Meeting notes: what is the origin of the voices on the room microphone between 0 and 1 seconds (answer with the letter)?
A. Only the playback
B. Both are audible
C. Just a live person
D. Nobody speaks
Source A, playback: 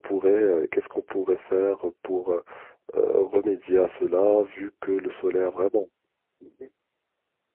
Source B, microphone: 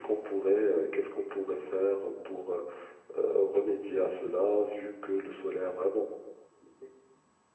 A